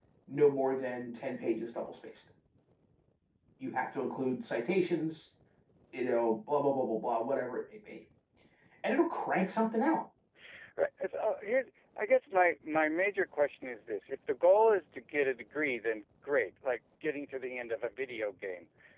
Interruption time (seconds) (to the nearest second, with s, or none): none